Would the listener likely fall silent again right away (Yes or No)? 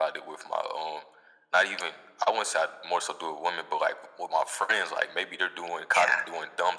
Yes